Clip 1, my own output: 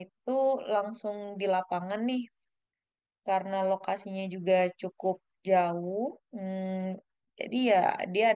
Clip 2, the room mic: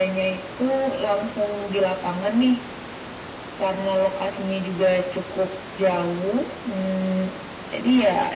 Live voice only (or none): none